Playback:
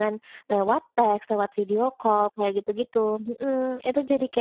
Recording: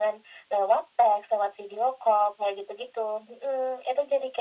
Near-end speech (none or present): none